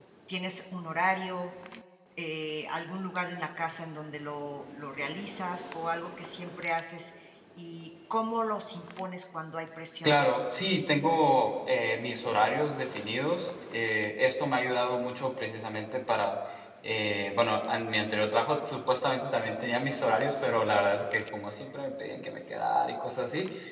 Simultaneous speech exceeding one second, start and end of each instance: none

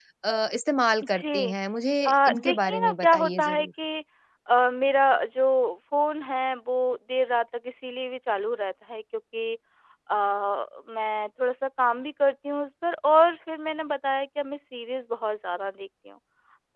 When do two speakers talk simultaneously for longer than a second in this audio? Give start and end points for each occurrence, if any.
2.0-3.7

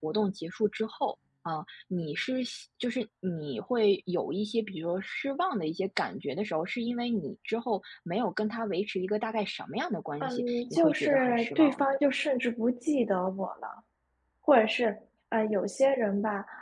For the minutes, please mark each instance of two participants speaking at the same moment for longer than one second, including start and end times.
10.2-11.9

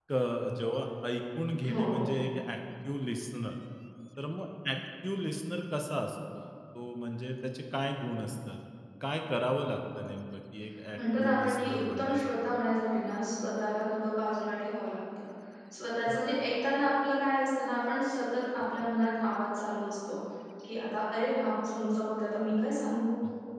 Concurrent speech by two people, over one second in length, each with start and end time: 10.9-12.4

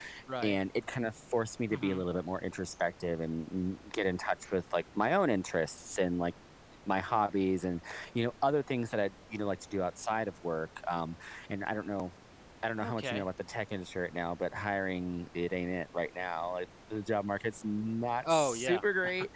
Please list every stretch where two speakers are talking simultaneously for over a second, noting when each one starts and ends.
none

